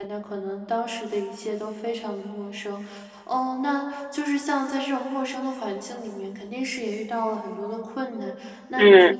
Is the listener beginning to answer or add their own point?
No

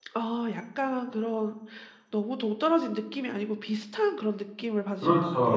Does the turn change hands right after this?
Yes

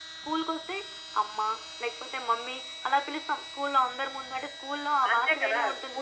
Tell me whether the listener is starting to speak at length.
Yes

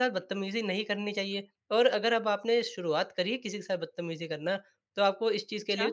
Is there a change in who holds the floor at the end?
No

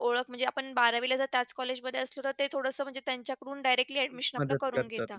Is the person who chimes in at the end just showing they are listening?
No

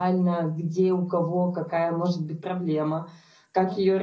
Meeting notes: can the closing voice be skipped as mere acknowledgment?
No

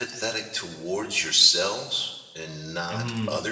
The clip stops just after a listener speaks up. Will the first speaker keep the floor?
Yes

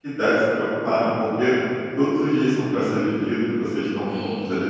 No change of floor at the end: No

